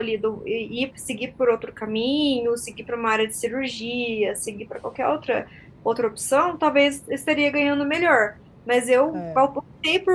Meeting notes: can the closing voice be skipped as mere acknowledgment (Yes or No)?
Yes